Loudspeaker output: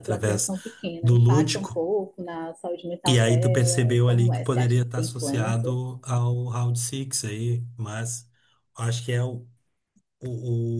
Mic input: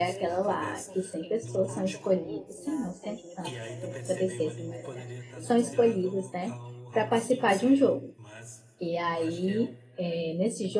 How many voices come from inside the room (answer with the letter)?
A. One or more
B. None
A